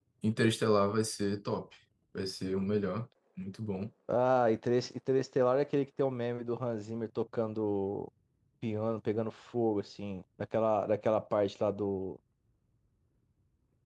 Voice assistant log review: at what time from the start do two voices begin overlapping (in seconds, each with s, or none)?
none